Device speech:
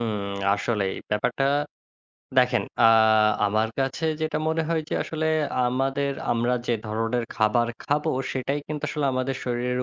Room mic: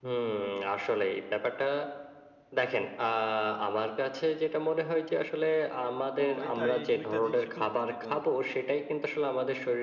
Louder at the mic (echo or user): echo